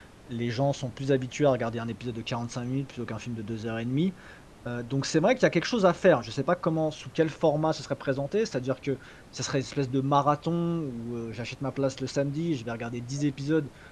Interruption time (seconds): none

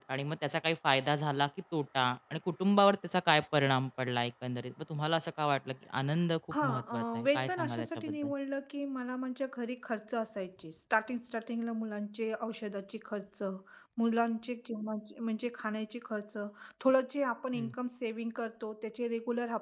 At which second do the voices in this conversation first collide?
6.5 s

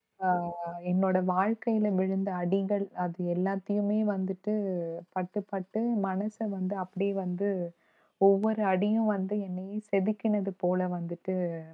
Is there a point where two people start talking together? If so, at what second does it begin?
none

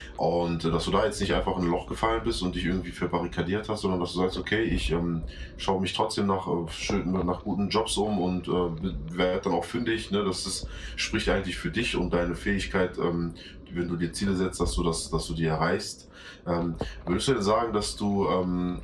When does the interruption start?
none

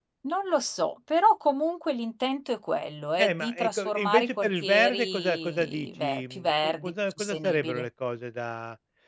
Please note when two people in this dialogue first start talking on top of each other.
3.2 s

